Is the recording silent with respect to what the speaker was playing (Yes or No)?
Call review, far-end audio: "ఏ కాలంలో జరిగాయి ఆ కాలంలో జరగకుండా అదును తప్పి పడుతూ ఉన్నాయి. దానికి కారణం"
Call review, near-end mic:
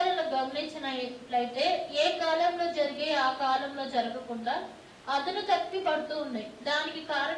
No